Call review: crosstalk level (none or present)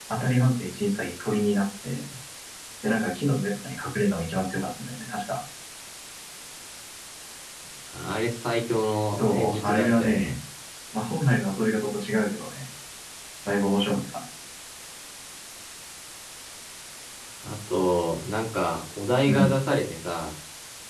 present